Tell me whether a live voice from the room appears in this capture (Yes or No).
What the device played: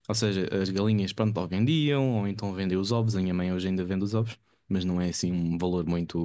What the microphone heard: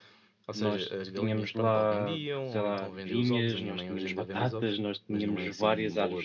Yes